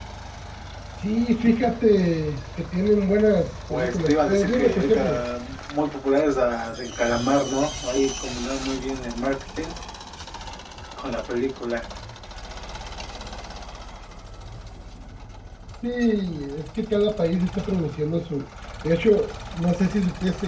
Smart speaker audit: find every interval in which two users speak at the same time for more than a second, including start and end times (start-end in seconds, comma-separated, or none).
3.7-5.2